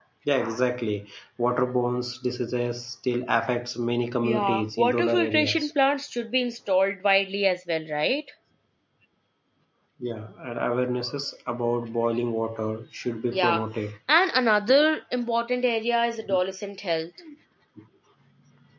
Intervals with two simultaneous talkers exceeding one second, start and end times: 4.2-5.7

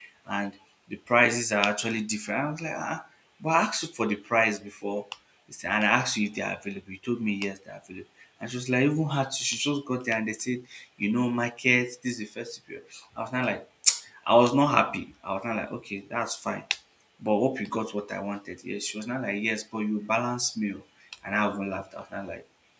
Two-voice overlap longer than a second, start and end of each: none

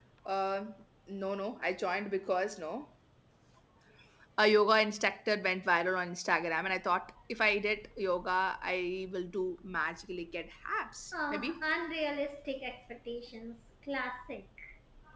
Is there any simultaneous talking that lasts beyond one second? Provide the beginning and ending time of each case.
none

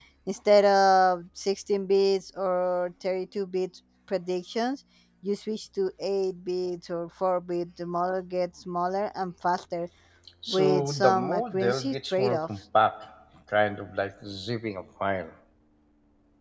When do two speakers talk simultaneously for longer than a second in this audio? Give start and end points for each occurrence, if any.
10.5-12.5

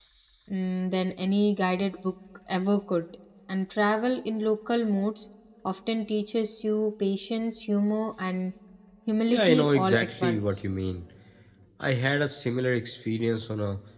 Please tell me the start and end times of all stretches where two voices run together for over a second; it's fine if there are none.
9.3-10.6

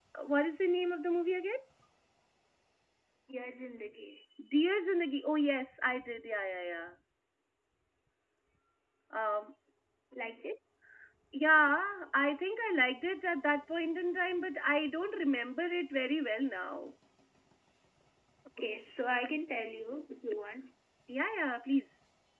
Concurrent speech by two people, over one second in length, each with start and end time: none

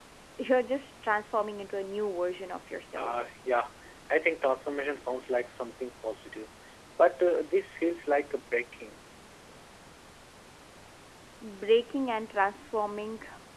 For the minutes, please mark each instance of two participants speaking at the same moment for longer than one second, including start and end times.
none

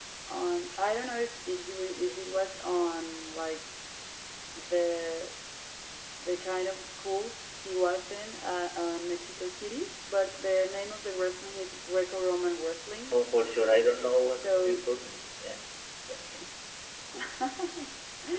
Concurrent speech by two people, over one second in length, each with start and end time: none

